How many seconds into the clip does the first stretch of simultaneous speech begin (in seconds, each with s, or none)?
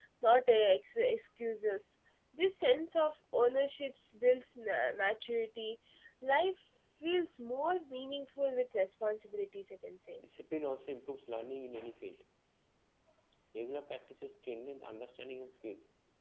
none